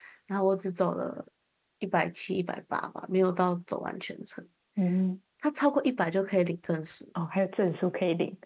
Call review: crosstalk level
none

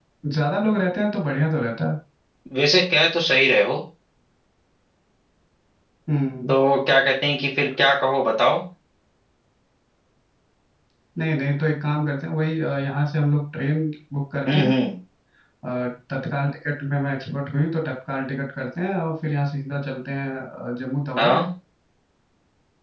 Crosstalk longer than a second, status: none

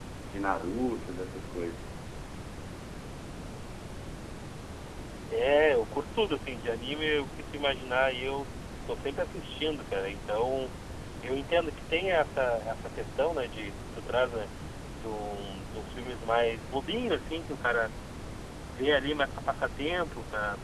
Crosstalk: none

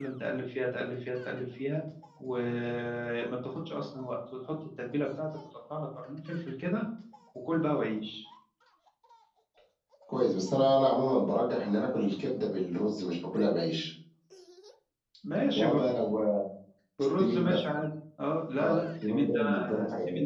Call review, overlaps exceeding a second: present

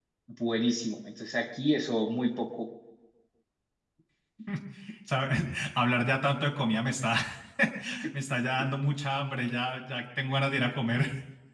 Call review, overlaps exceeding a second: none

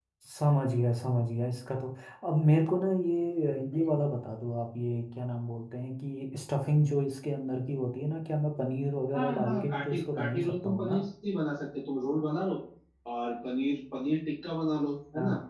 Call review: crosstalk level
present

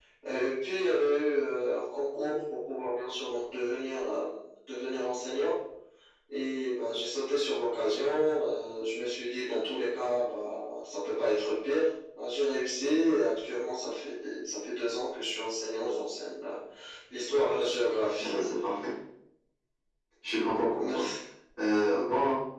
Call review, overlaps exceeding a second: none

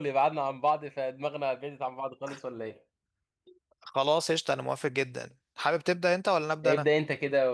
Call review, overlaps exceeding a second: none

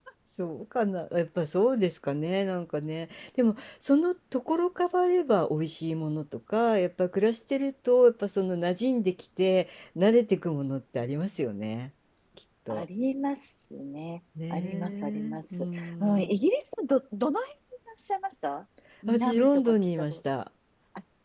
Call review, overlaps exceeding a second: present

